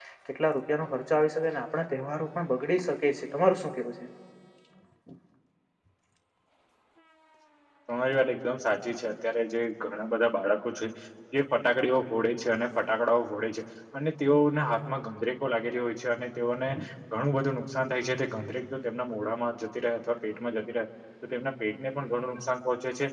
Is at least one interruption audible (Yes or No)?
No